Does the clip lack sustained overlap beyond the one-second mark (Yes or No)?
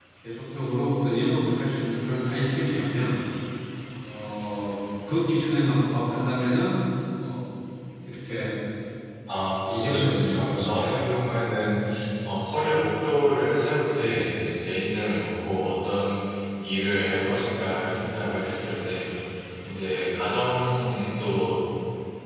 No